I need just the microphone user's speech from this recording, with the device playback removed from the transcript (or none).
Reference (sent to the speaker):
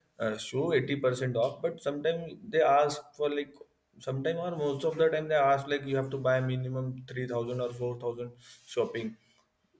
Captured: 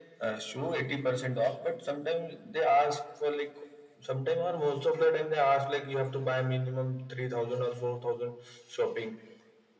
none